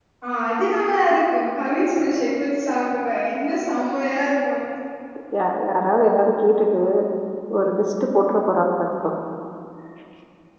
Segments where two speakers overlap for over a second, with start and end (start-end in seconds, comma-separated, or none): none